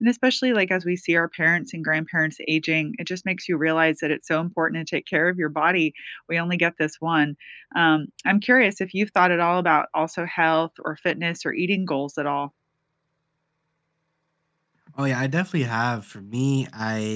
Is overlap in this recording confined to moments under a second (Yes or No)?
Yes